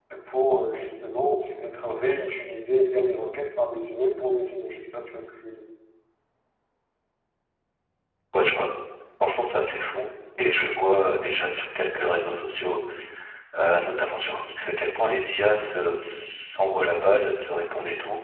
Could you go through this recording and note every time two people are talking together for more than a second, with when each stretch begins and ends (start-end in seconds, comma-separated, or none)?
none